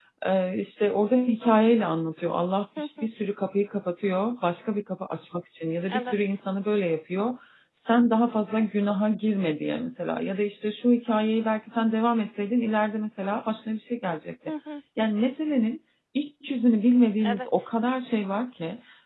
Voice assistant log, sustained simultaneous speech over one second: none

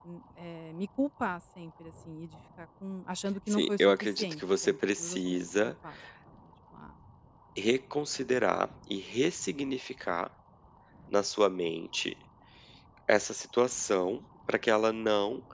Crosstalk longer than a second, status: present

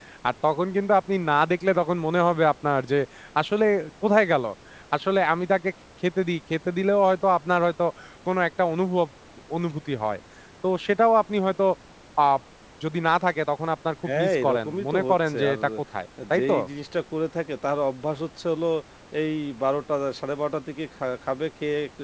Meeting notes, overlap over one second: present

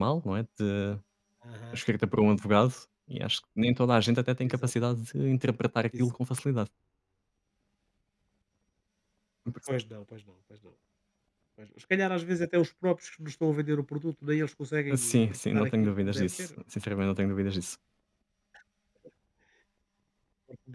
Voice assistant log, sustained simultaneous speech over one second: present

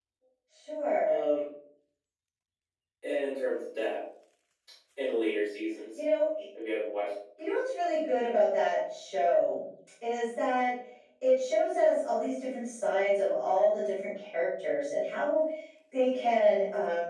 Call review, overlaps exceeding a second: none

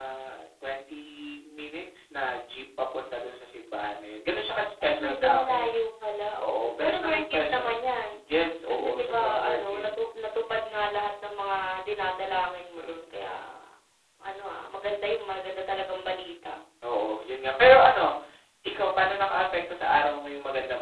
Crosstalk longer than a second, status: present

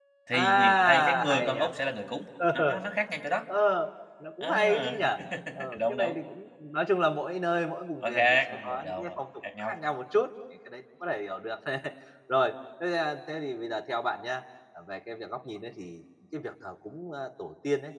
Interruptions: present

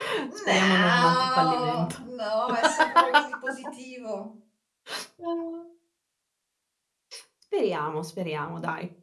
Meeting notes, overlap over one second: present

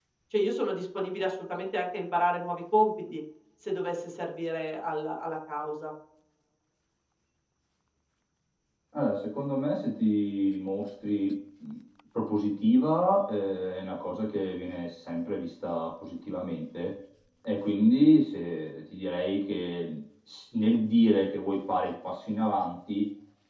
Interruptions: none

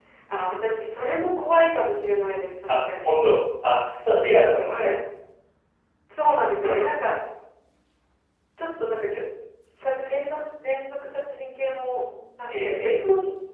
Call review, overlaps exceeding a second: none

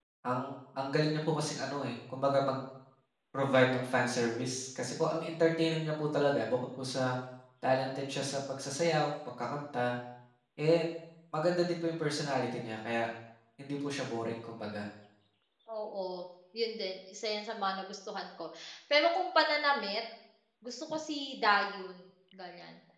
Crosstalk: none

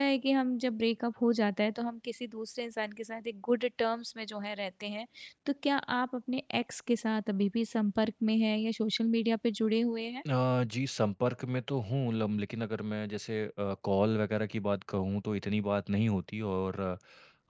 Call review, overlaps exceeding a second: none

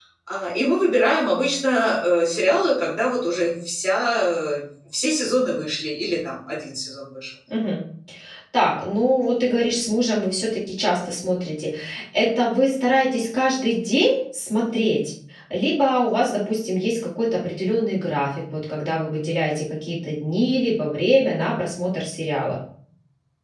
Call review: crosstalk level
none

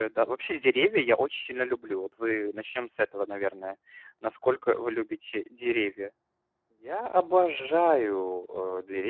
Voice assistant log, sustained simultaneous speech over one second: none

